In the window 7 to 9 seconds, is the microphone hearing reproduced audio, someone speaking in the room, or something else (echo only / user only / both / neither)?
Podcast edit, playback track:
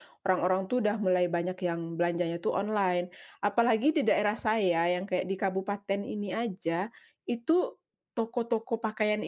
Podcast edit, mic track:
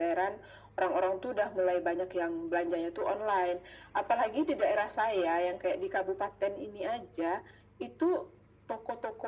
echo only